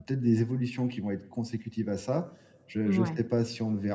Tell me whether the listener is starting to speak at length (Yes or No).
No